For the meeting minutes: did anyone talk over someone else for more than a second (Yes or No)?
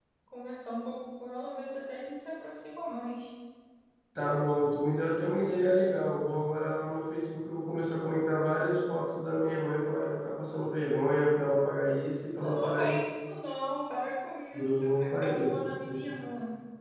Yes